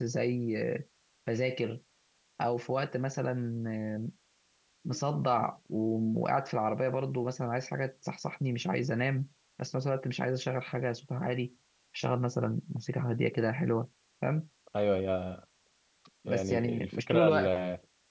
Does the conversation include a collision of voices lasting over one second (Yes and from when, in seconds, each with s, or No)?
Yes, from 16.3 s